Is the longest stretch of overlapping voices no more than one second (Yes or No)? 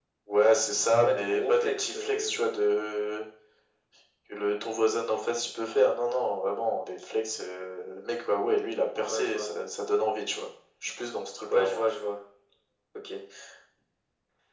No